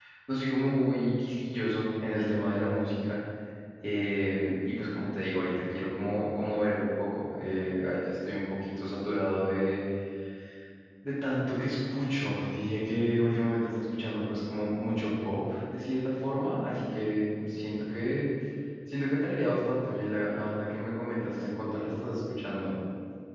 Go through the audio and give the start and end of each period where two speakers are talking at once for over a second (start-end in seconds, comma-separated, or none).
none